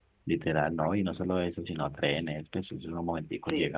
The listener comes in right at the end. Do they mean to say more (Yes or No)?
No